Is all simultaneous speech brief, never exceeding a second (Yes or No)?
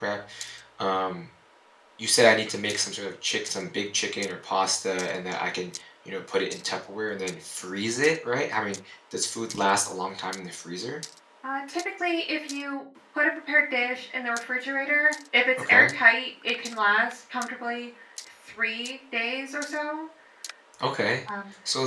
Yes